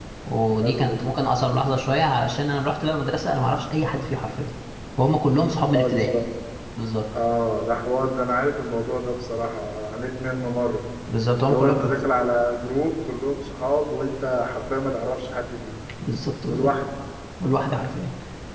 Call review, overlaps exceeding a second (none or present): none